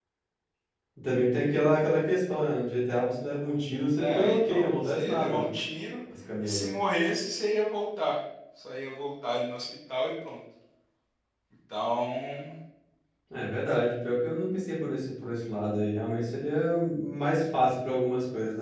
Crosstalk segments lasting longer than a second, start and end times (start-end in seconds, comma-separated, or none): 4.0-5.5